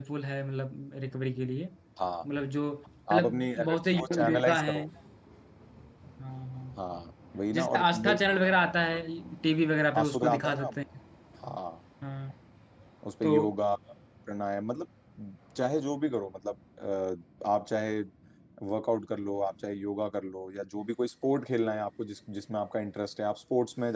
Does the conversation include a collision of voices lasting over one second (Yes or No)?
Yes